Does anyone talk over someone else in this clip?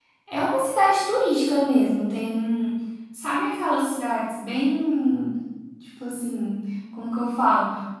No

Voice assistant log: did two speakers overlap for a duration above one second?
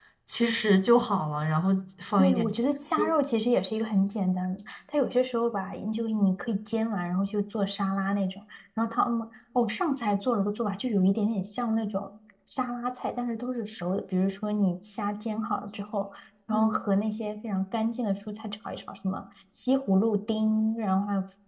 No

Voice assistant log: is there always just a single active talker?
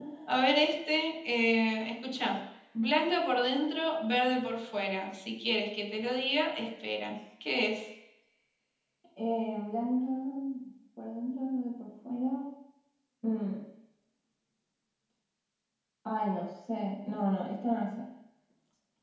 Yes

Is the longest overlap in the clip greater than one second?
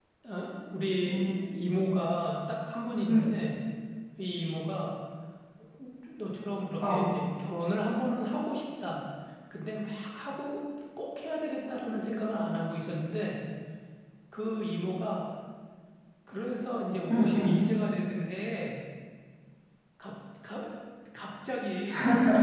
No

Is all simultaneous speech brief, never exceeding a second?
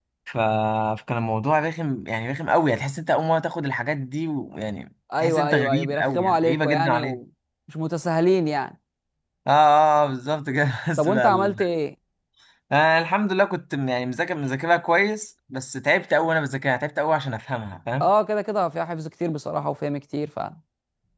No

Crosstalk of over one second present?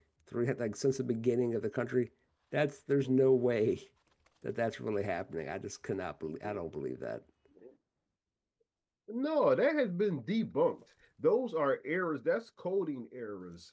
No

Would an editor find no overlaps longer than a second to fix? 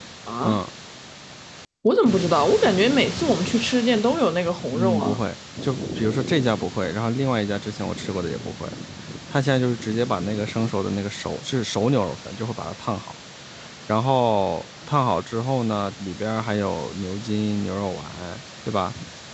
Yes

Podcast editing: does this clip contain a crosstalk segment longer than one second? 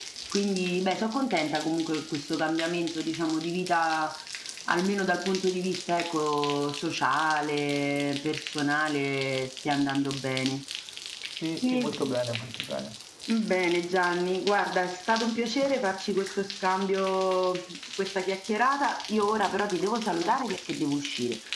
No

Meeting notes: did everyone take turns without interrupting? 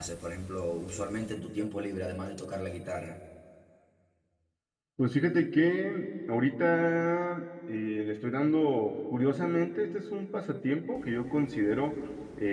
Yes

